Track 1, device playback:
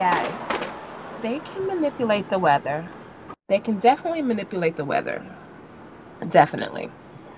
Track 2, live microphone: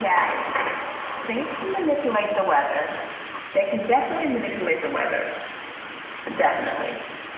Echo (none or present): present